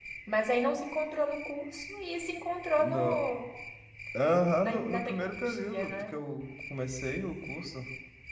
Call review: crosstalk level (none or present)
present